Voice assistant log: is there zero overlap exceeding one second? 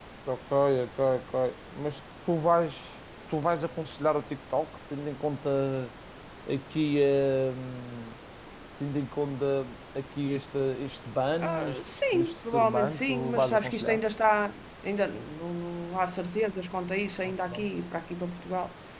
No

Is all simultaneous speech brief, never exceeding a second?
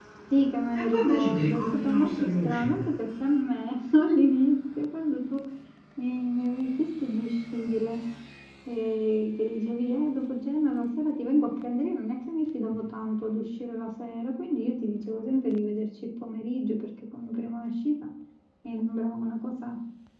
No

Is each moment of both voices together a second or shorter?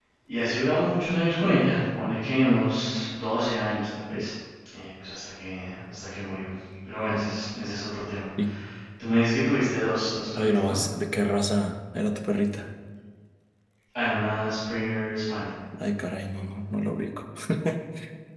Yes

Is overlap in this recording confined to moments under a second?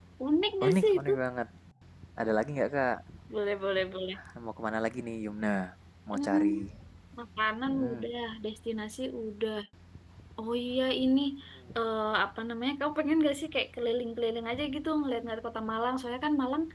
Yes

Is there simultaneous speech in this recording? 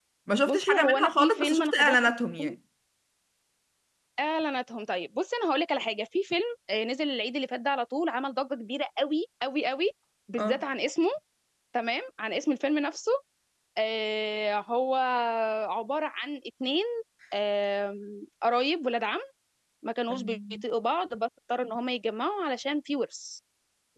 Yes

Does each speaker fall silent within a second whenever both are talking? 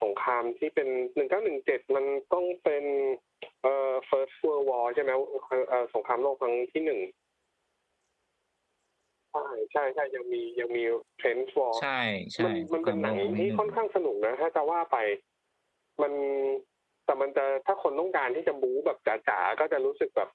No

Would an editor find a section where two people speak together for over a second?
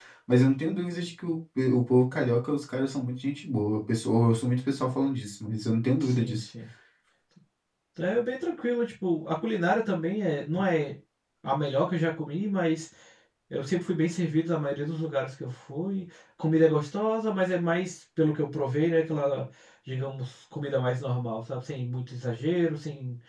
No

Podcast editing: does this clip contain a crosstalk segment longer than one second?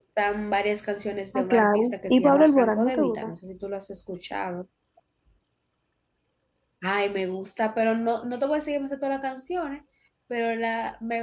Yes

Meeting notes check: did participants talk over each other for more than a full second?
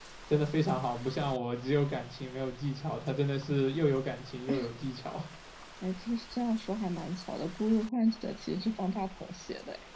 No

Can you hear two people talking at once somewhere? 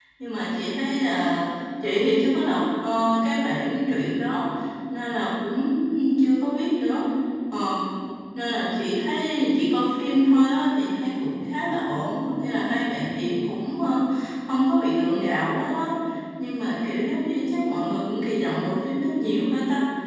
No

